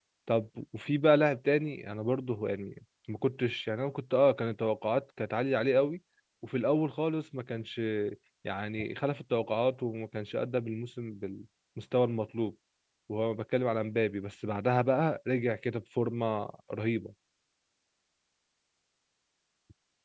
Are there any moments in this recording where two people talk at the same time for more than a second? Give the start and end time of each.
none

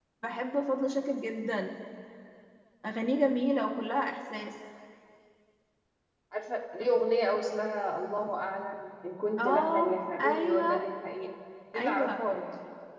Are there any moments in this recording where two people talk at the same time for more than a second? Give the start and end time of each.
9.4-10.8

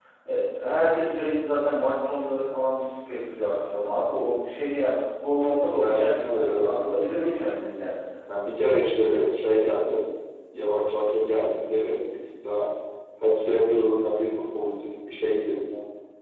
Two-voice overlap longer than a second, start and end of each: 5.7-7.1

